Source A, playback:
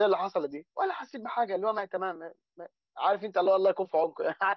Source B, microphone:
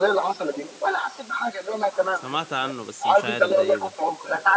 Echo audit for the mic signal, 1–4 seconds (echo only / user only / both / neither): both